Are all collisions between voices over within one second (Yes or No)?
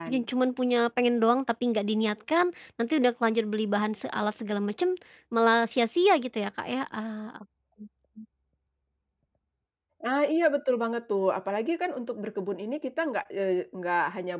Yes